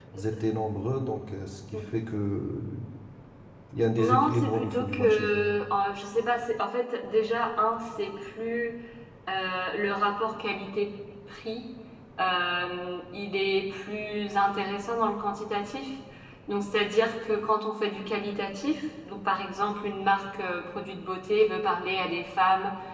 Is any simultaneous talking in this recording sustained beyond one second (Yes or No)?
Yes